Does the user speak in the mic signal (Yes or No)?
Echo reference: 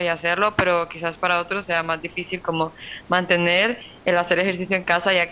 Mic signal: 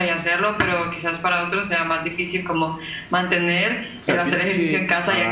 Yes